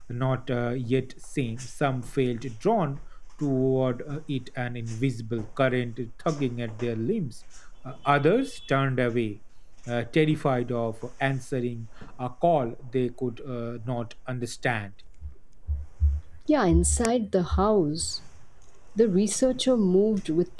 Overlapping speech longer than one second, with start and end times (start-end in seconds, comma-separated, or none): none